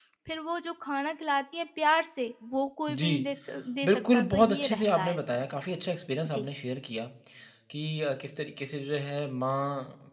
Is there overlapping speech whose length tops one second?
Yes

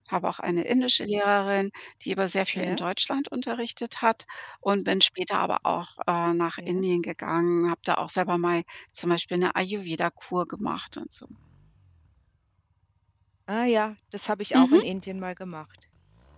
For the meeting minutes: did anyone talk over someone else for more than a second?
No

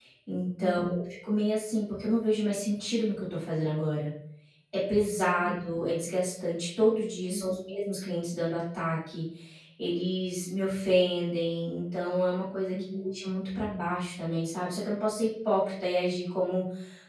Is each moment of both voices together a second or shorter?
Yes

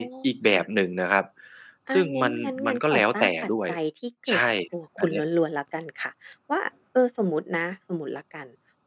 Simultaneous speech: Yes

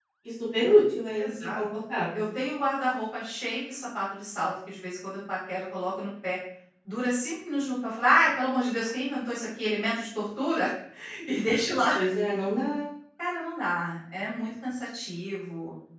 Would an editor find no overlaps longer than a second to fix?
Yes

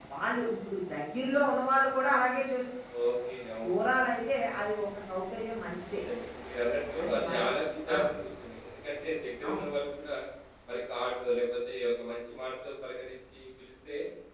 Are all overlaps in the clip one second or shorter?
Yes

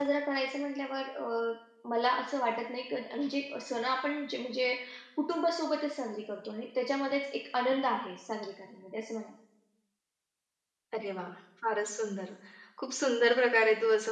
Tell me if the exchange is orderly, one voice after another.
Yes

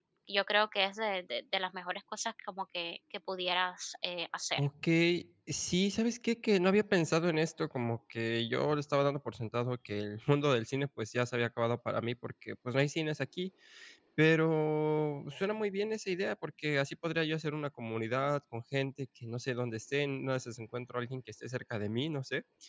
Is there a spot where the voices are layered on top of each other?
No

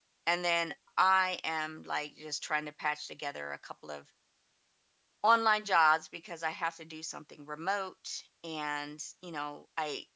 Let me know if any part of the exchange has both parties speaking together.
No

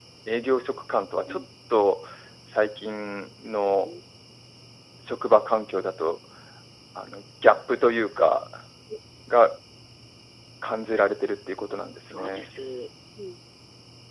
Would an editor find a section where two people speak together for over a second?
No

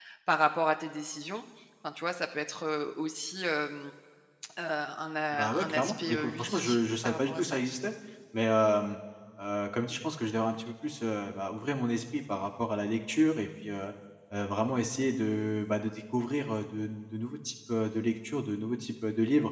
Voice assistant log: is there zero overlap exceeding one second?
No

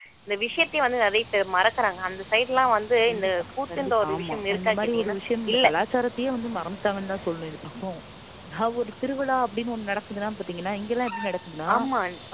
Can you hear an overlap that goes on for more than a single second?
Yes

